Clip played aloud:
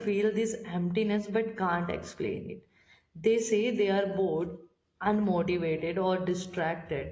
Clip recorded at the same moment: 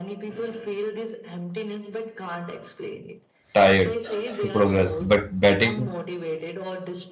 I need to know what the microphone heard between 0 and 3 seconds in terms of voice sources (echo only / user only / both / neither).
echo only